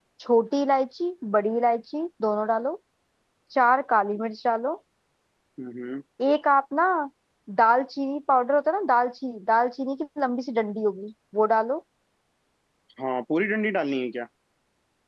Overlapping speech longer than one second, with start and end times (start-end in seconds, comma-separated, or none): none